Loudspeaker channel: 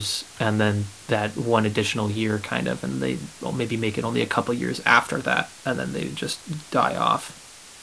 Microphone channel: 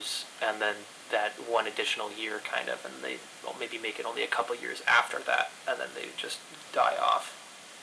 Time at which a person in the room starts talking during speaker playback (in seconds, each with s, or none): none